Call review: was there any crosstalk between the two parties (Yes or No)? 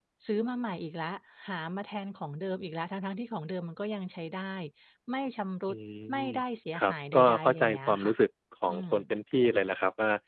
Yes